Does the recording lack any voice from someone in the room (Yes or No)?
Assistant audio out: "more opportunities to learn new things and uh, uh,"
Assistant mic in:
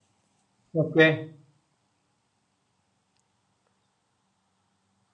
No